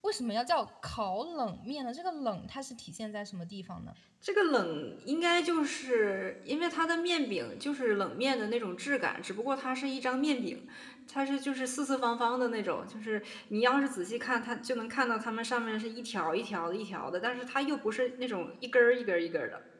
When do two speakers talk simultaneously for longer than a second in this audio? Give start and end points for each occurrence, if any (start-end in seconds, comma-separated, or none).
none